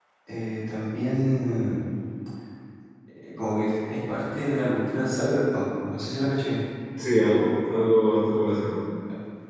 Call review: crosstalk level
none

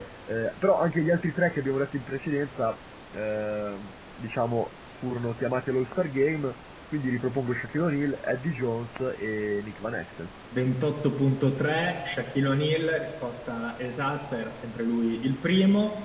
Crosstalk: none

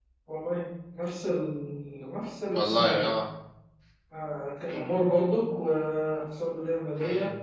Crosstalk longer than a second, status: none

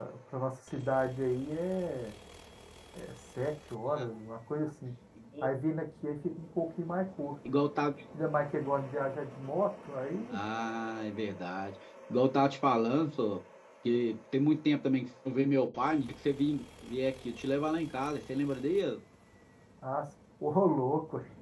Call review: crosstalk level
none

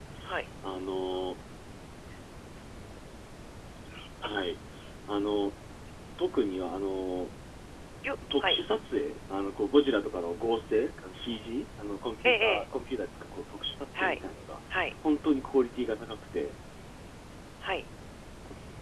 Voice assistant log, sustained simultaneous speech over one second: none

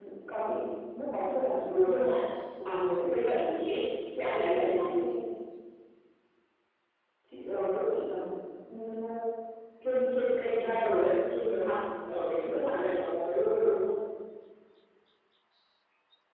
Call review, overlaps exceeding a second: none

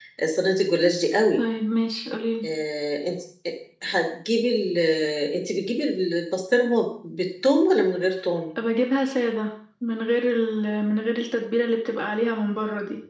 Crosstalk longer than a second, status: none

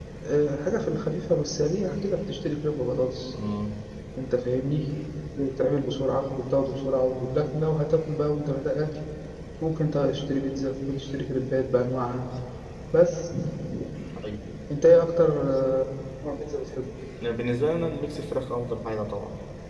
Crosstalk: none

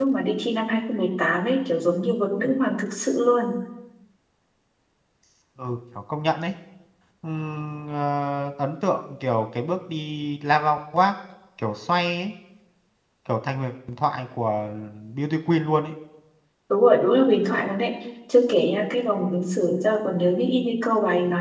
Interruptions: none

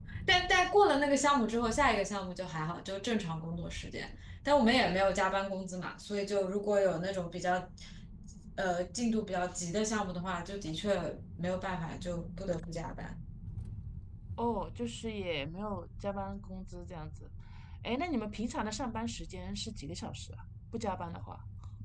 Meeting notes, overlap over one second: none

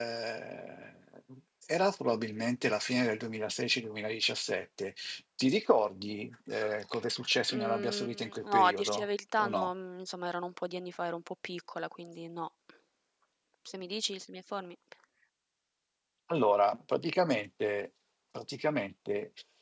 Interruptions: present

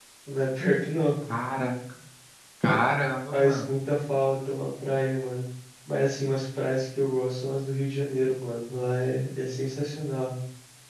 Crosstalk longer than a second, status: none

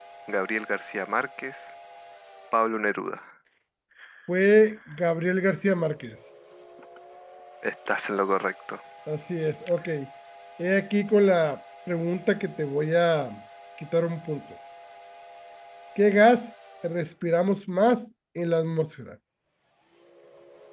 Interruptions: none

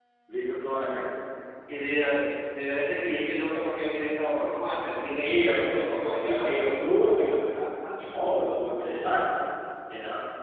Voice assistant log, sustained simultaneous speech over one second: none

